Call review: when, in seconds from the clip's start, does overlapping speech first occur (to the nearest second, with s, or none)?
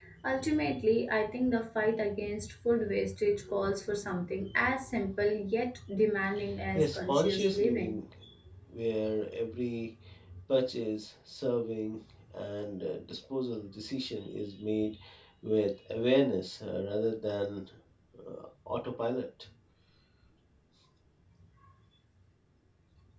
7 s